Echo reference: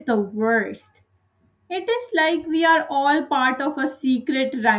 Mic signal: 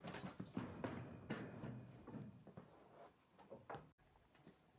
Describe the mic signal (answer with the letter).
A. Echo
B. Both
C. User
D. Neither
D